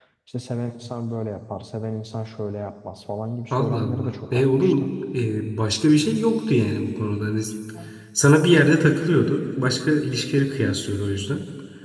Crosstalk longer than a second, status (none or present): present